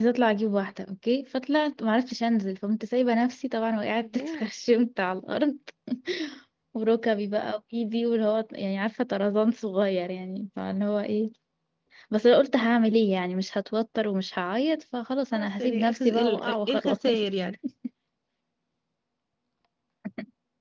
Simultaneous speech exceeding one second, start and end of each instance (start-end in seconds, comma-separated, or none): 15.3-17.0